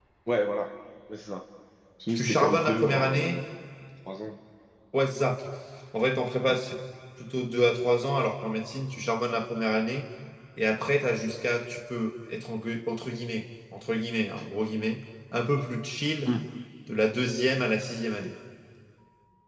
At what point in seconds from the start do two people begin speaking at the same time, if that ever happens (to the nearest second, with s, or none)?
2 s